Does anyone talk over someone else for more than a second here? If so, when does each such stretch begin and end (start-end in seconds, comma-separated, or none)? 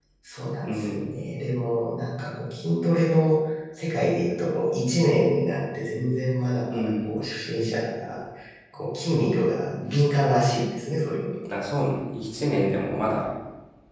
none